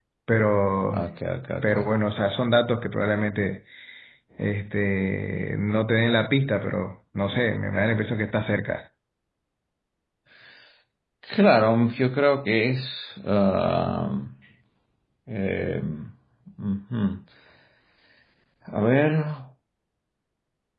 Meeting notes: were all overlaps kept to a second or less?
Yes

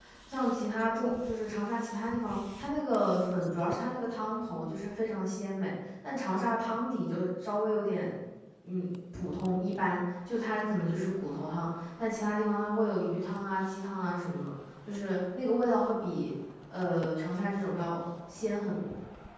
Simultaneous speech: No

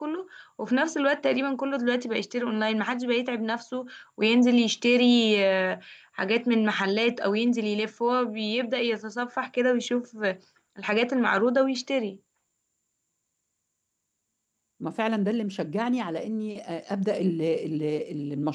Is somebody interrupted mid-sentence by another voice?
No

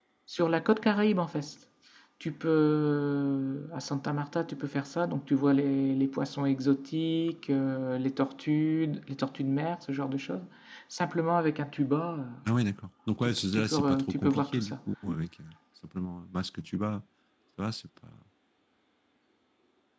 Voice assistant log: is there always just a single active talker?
No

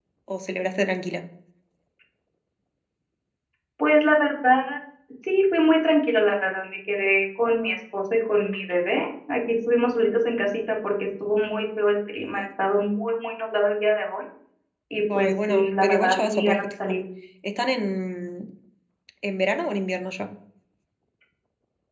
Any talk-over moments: Yes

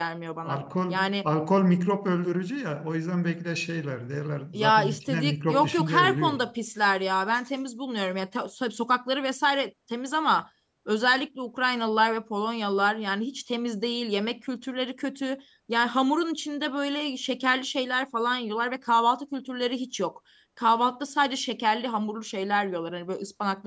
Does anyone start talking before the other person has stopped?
Yes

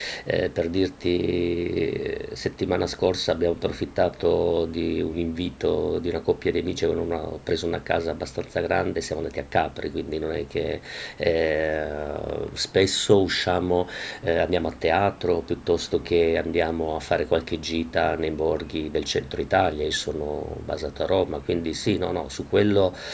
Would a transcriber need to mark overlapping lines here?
No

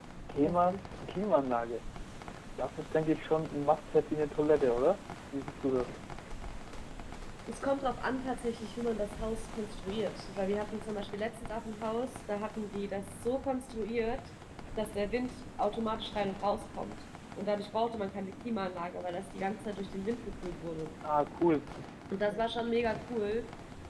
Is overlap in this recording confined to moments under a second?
Yes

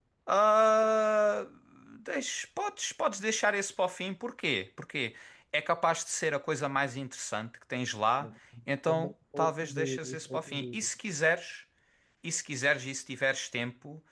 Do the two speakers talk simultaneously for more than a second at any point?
Yes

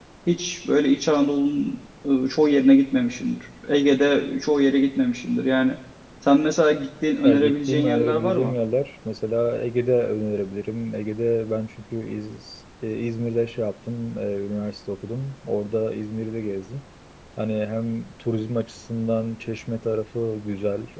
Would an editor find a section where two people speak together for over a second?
Yes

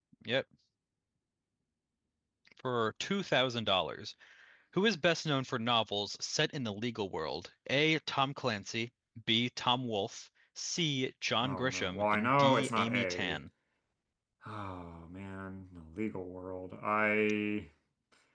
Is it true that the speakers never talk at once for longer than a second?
No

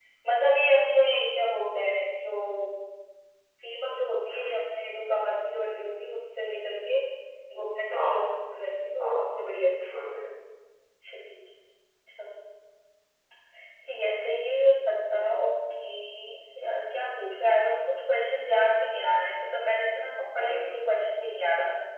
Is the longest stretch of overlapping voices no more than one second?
Yes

